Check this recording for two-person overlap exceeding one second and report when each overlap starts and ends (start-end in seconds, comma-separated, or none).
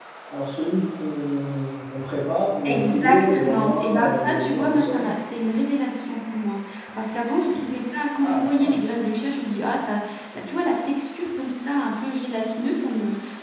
2.7-5.0